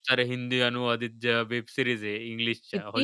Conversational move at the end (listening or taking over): taking over